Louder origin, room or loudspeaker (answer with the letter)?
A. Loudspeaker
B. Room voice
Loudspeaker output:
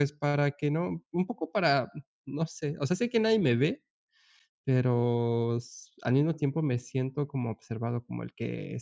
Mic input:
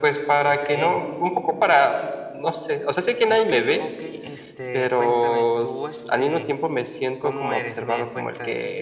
A